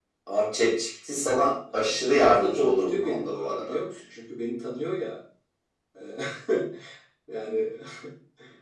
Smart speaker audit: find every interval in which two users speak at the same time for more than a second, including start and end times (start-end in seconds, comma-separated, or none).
1.7-3.8